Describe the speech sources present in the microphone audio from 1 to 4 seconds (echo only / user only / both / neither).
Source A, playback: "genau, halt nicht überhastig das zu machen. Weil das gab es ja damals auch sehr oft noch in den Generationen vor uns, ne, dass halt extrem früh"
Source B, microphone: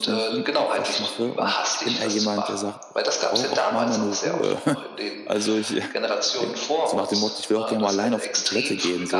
both